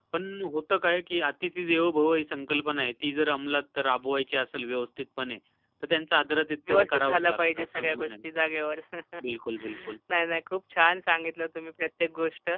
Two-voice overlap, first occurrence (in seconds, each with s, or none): 6.7 s